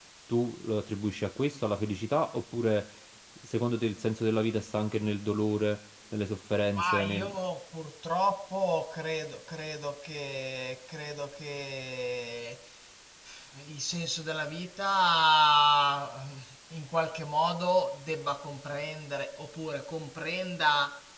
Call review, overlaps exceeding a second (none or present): none